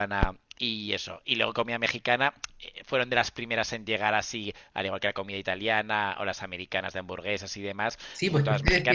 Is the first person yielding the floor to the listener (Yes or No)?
Yes